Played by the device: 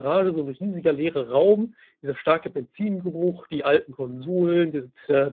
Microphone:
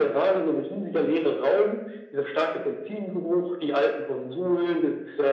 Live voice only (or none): none